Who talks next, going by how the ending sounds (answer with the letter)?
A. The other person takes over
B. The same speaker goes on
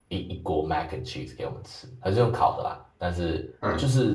B